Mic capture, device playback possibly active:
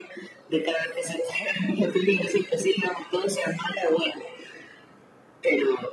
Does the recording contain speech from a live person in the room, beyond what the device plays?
No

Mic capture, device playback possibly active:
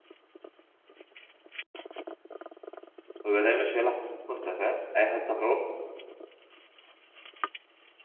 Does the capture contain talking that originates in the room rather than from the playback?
Yes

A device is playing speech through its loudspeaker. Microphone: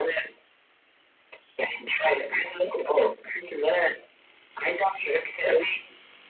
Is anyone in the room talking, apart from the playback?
No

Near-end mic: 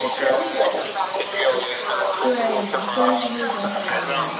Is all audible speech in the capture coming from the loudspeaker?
No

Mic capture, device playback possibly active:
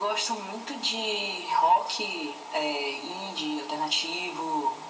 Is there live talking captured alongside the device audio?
No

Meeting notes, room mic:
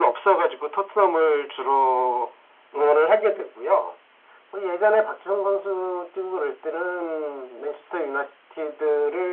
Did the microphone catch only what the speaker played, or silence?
Yes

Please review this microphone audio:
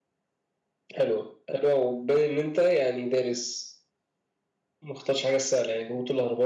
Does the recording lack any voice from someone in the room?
Yes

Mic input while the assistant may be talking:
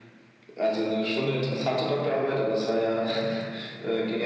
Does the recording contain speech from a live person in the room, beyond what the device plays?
No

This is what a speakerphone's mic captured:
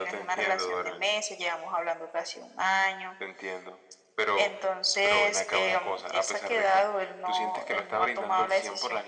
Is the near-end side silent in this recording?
Yes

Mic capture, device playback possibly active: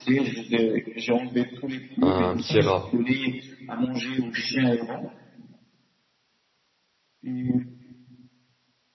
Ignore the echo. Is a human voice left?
Yes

